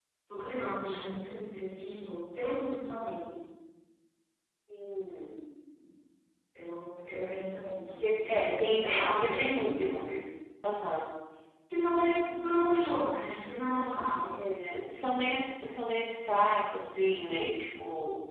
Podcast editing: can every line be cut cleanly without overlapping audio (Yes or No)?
No